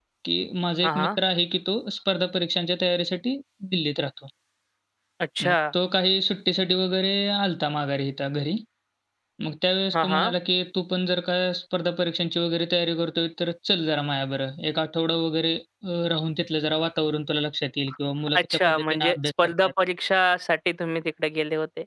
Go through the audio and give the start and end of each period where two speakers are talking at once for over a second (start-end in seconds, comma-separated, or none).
18.4-19.7